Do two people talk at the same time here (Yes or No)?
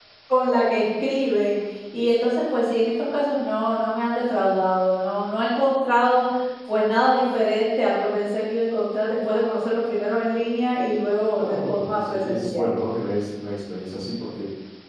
Yes